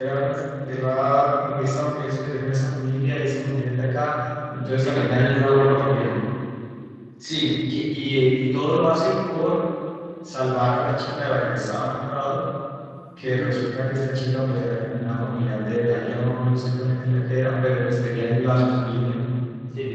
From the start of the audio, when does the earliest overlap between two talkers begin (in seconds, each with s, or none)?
4.8 s